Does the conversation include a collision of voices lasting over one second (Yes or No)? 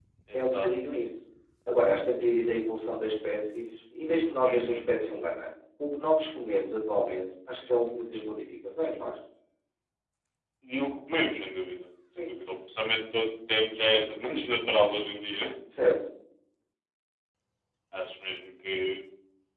No